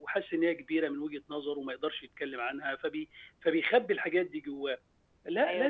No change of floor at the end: Yes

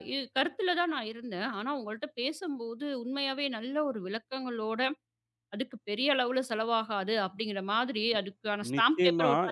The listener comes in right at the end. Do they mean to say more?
Yes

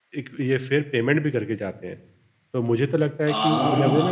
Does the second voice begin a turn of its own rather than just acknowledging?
No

